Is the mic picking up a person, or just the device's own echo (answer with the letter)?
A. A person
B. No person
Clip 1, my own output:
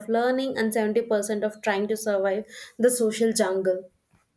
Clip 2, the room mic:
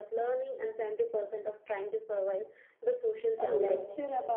A